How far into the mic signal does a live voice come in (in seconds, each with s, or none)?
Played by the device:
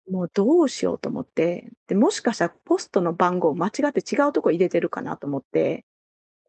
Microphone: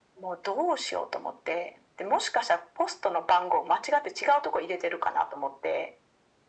none